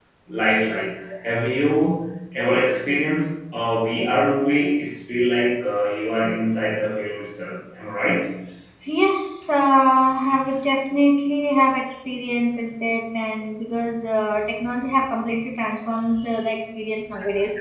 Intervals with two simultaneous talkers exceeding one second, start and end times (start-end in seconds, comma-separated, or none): none